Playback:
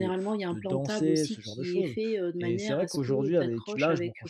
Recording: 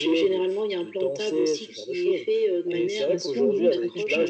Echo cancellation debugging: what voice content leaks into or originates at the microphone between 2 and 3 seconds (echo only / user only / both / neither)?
both